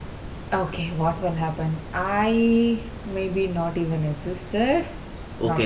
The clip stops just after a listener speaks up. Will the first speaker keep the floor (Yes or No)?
No